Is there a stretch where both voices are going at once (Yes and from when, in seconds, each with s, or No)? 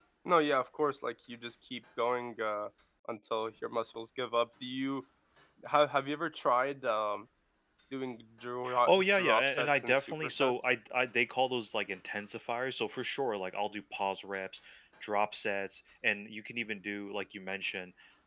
Yes, from 8.6 s